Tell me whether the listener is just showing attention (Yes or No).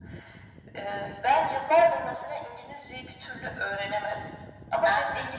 Yes